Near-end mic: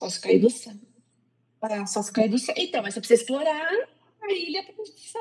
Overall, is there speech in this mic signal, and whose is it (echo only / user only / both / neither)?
echo only